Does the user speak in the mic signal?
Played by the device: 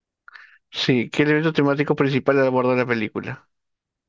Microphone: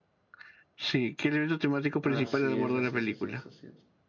Yes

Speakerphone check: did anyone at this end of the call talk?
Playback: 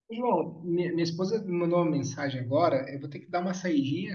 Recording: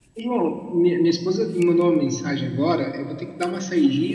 No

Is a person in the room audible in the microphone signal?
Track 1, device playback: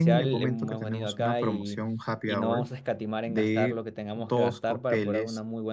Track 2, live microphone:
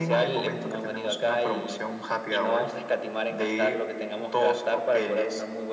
No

